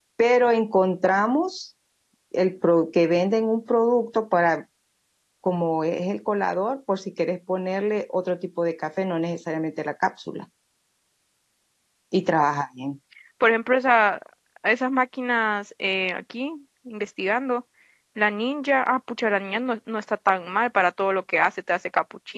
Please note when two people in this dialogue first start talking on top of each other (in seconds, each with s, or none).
none